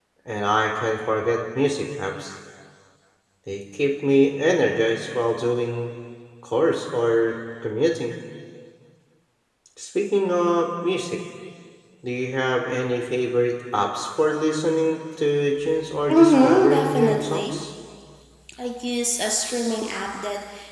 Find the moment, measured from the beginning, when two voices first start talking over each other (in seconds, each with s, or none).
16.1 s